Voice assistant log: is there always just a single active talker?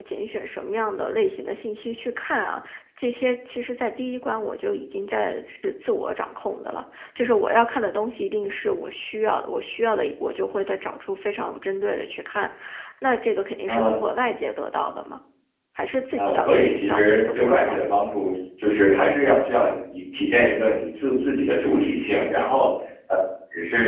No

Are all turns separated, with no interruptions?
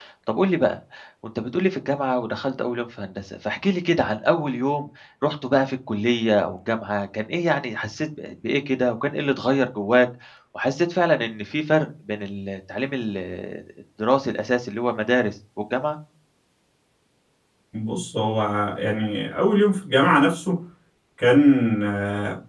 Yes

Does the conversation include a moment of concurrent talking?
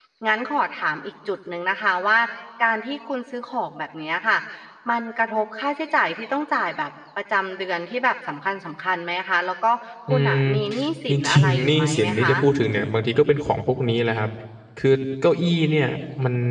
Yes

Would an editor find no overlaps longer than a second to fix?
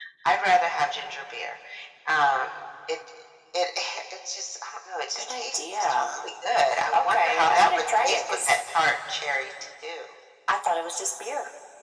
No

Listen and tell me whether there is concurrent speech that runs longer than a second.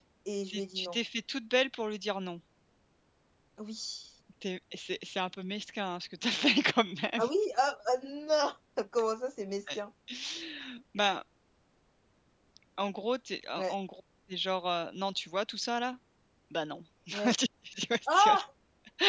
No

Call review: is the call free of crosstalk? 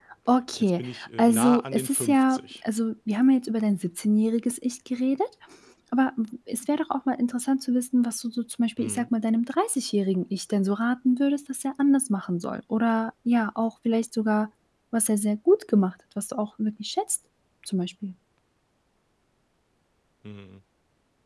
No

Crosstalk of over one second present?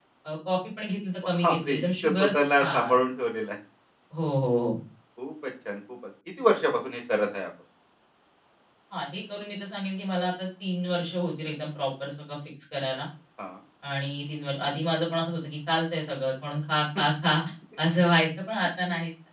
Yes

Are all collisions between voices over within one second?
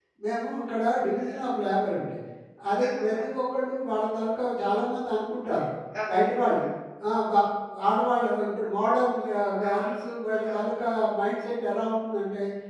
Yes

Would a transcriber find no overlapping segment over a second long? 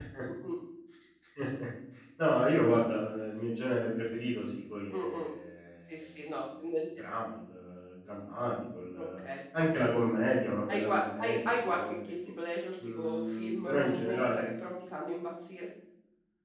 No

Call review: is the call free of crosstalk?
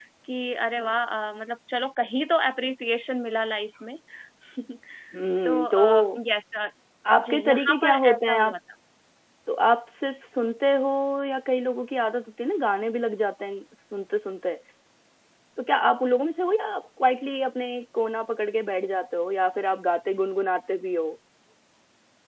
No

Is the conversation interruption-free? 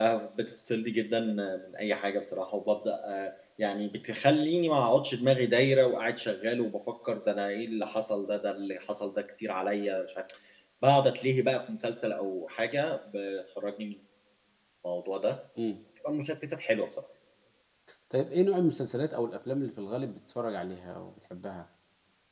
Yes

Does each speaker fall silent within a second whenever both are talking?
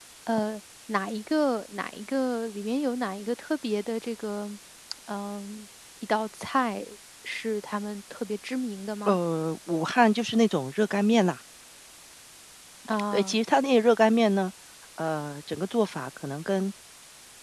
Yes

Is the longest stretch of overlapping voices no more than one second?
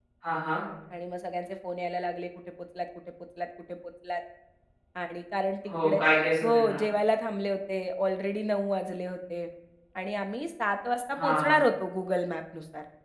Yes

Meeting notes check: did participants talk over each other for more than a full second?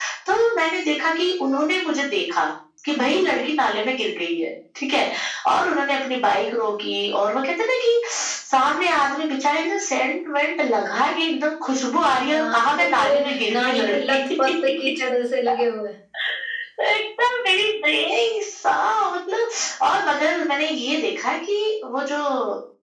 Yes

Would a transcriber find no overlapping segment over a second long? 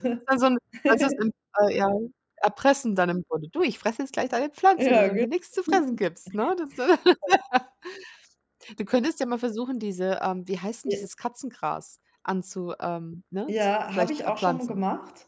No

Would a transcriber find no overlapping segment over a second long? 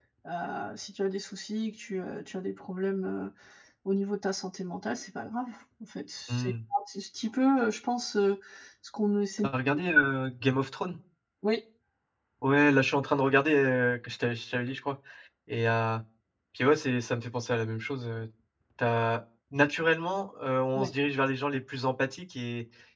Yes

